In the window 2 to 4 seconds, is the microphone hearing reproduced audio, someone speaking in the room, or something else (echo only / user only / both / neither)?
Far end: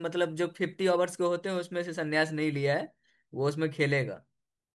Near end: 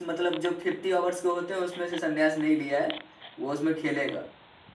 echo only